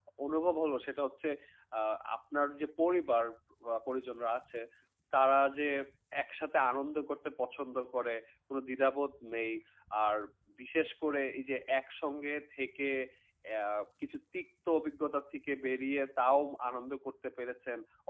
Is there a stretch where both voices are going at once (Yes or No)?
No